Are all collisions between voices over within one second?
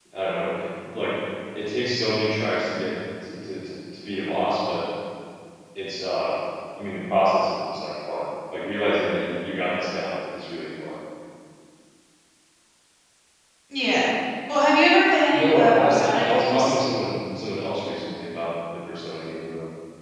No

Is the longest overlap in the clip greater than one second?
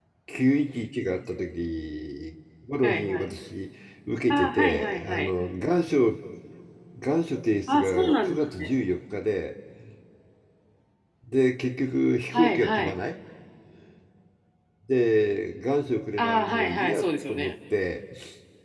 Yes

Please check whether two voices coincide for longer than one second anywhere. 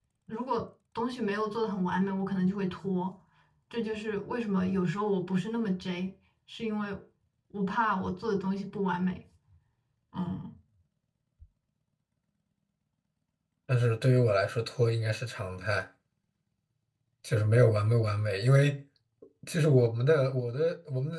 No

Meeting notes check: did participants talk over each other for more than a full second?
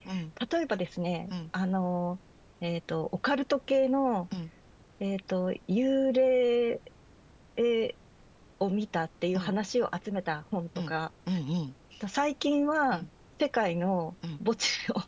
No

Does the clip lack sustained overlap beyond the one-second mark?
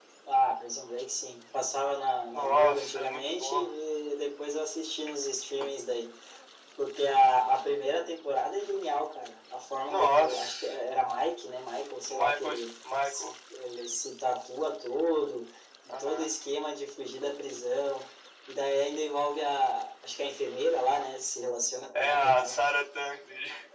No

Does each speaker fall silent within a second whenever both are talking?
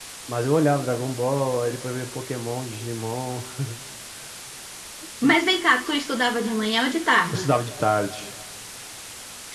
Yes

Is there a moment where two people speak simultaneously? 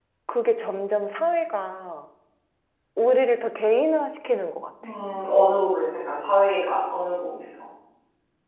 No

